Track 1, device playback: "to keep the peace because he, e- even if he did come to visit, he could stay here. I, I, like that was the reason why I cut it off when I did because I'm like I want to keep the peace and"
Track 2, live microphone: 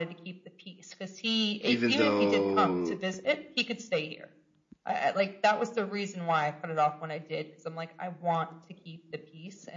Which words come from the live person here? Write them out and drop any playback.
even though

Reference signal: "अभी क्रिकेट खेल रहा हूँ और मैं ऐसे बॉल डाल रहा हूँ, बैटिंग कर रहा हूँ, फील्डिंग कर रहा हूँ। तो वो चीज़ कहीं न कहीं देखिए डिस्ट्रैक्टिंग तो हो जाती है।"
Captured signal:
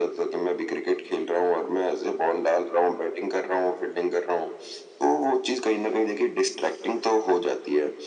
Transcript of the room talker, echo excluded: none

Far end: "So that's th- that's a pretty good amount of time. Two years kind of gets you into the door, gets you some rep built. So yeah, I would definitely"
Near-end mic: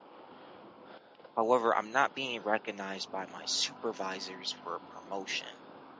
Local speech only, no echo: However, I'm not being recognized by my supervisors for a promotion

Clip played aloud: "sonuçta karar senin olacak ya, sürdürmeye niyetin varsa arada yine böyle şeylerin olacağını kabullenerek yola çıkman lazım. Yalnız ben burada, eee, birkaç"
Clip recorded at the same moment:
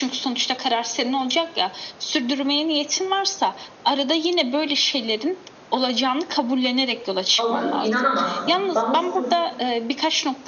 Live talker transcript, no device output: Allah'ım inanamazsın, bana "Sus!"

